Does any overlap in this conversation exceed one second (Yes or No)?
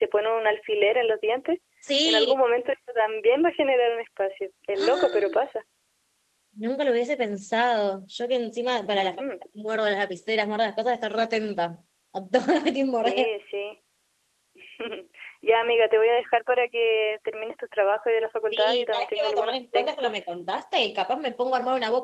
Yes